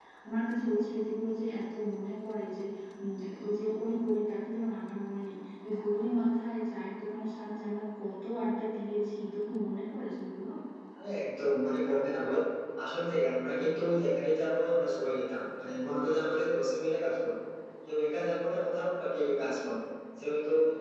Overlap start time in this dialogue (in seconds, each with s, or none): none